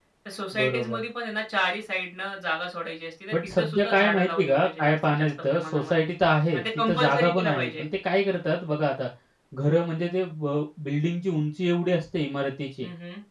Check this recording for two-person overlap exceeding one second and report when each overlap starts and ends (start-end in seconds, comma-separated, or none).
3.3-5.9, 6.5-7.8